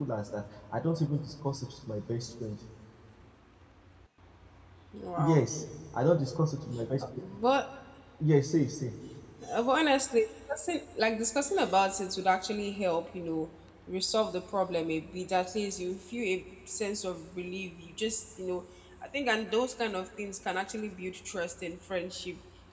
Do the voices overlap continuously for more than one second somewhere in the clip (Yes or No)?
No